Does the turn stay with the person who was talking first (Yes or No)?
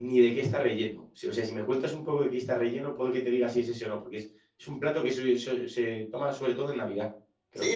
No